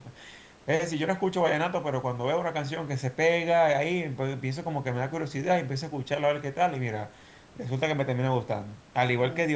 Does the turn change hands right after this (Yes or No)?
No